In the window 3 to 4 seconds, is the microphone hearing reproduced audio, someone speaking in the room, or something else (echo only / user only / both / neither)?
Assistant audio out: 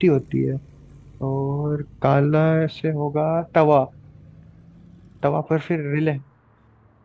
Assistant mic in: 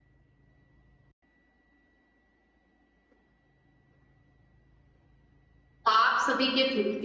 neither